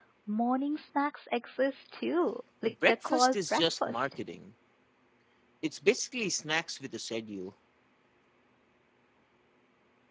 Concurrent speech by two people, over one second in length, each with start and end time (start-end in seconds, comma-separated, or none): 2.6-4.1